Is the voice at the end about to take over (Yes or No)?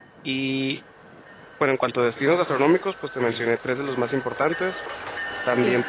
Yes